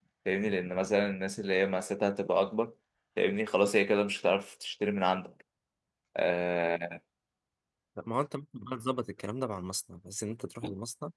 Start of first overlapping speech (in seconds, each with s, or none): none